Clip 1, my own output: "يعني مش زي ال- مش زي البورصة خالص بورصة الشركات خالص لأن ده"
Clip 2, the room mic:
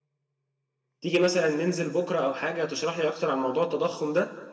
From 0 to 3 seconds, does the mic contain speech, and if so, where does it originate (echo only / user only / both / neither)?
user only